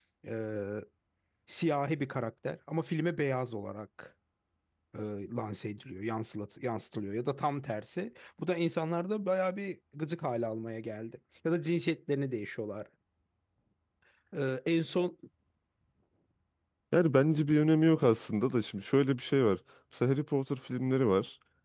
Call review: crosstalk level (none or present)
none